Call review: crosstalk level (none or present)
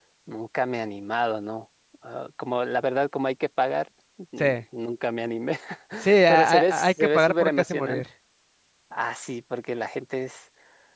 present